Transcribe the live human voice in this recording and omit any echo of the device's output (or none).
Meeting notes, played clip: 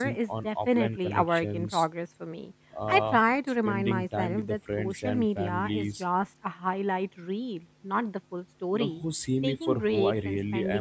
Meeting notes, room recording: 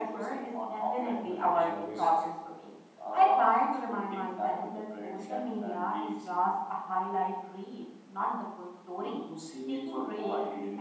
to innovate